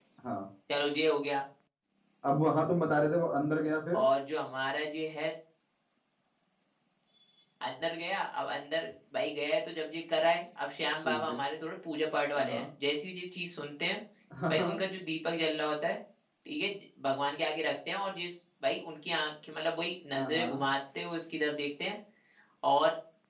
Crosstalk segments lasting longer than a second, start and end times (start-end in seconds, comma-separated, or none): none